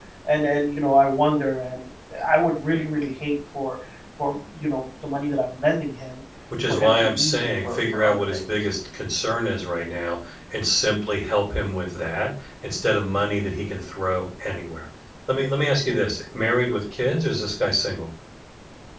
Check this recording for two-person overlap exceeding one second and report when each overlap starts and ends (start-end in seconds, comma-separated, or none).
6.7-8.4